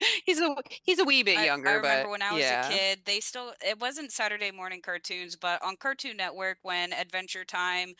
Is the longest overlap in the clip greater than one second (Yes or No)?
Yes